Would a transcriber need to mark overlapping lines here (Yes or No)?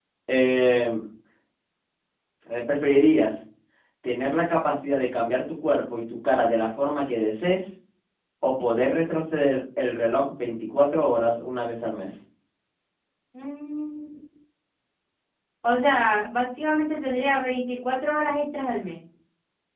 No